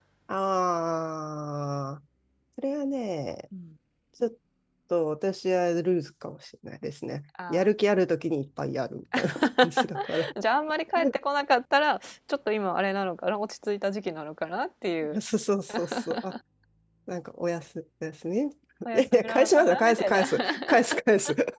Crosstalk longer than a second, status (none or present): present